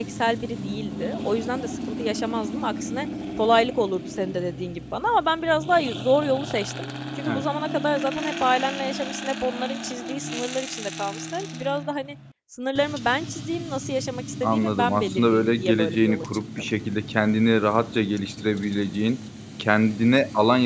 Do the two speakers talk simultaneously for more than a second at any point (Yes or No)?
Yes